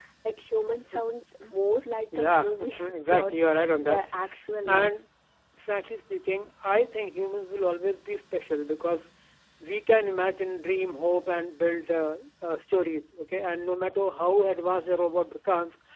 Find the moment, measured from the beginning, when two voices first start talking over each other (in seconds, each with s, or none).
2.2 s